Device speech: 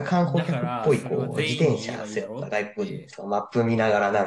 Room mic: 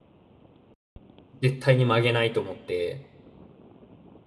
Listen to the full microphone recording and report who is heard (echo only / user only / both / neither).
user only